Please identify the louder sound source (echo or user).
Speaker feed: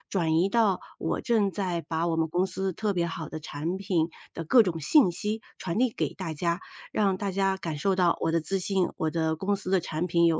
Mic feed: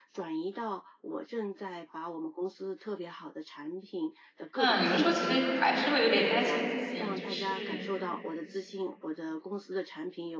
user